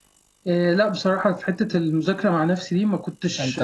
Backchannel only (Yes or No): Yes